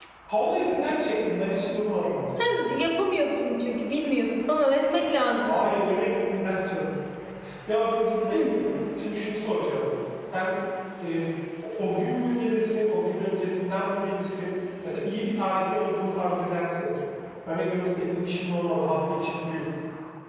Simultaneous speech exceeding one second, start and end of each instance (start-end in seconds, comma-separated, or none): none